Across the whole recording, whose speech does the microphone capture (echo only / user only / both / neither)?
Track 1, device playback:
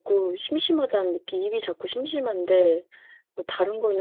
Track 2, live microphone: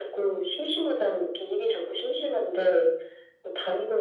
echo only